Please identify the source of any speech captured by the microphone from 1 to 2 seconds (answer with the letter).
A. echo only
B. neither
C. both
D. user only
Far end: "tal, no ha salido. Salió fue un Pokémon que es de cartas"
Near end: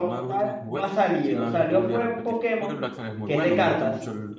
C